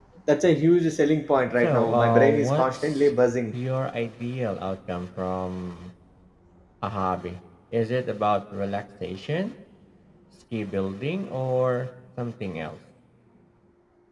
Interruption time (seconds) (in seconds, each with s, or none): 1.6 s